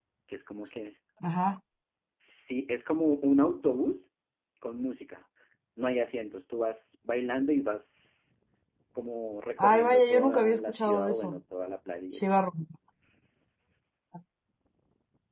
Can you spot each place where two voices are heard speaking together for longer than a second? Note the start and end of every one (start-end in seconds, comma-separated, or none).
9.6-11.4